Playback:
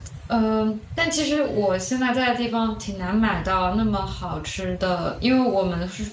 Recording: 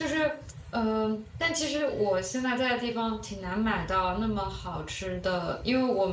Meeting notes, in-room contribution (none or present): none